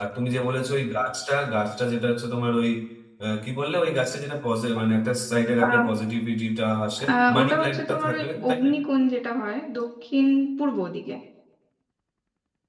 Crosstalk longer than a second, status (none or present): present